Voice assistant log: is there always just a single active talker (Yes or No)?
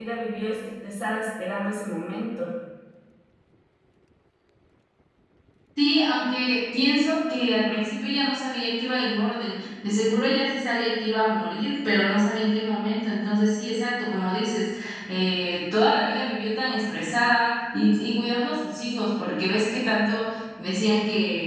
Yes